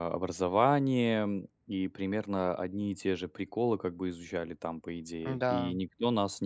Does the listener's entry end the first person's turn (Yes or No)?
No